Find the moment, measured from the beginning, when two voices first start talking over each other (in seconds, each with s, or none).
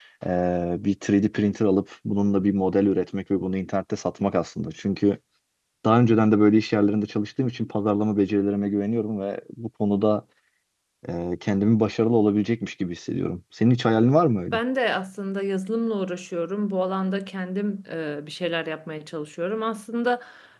none